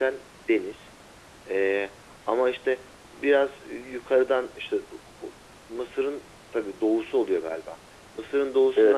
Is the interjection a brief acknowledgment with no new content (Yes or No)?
Yes